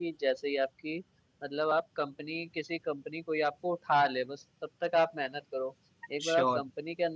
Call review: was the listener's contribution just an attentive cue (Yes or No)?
Yes